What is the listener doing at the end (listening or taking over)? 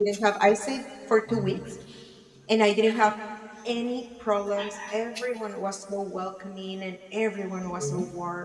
listening